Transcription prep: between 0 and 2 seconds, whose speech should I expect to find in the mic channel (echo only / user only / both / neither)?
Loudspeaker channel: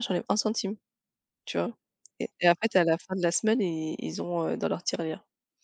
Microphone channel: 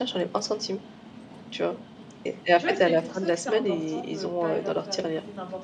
echo only